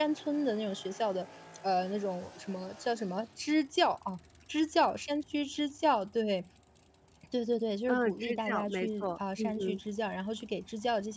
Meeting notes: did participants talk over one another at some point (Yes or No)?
Yes